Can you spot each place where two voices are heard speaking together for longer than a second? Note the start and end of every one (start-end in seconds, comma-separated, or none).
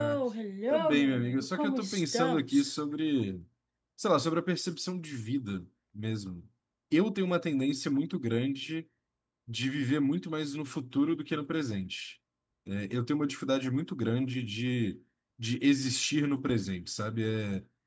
0.7-2.8